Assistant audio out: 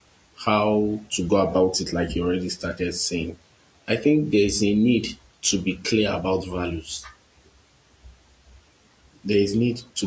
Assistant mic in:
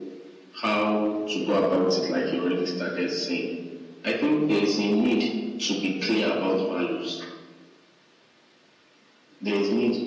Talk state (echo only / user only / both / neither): echo only